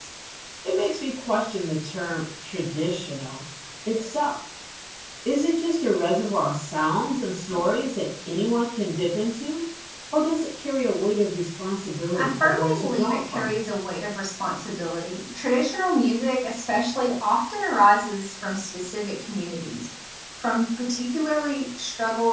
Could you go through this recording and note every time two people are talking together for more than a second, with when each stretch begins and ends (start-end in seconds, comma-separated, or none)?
12.1-13.6